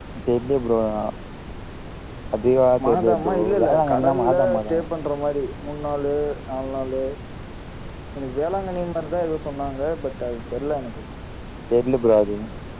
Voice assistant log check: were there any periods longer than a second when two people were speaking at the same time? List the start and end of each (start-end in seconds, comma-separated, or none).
2.8-4.8